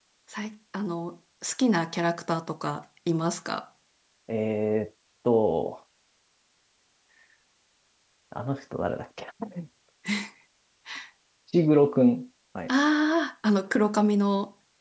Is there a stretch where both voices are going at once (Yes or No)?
No